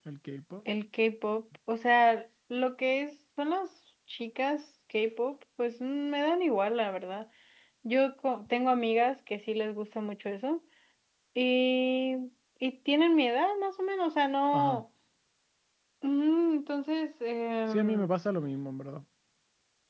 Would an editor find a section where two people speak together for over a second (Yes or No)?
No